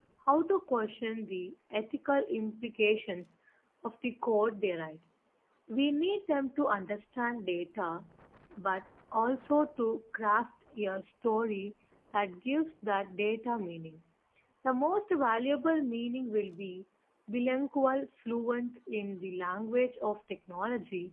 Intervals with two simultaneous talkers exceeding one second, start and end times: none

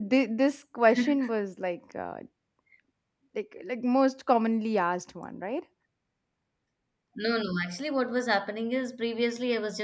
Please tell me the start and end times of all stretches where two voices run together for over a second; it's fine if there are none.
none

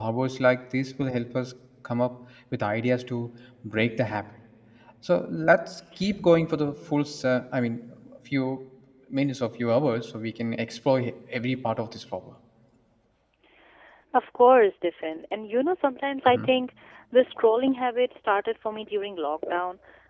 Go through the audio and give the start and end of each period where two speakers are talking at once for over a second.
none

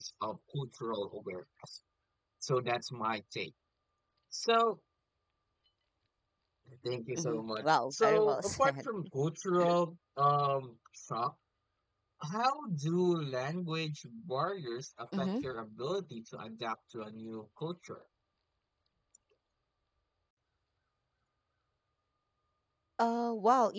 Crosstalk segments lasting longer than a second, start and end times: 7.2-8.8

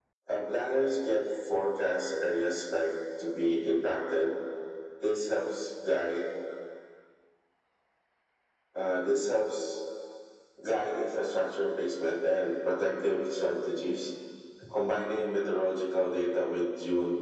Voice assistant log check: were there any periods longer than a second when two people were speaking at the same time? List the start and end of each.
none

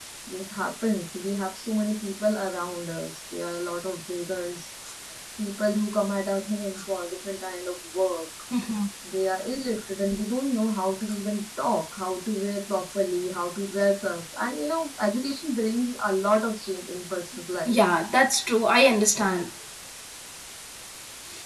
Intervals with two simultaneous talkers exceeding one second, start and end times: none

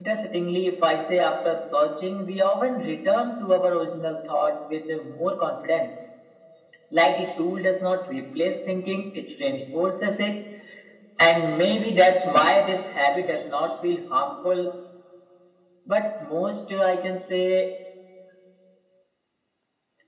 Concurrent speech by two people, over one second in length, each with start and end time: none

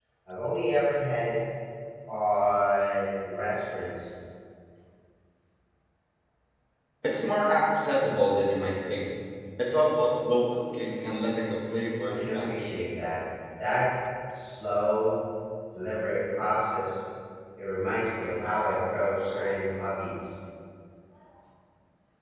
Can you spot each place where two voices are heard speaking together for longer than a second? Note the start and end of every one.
none

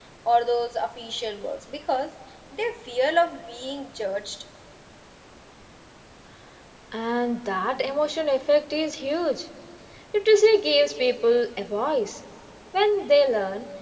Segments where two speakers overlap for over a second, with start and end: none

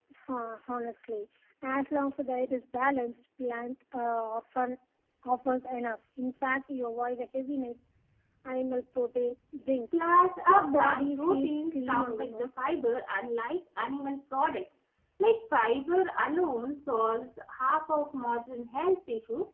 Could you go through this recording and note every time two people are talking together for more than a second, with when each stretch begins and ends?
10.5-12.5

